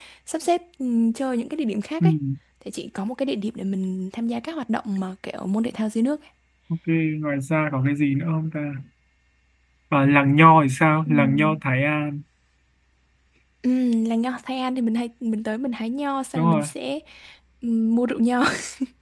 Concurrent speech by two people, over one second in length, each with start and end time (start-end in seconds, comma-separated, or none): none